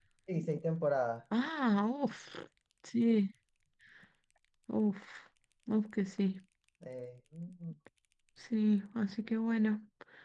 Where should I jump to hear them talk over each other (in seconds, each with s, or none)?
none